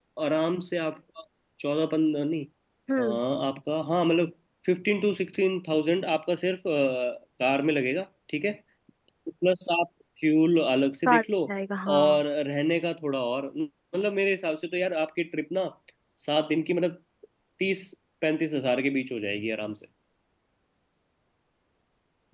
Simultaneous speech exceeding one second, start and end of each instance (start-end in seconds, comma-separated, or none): none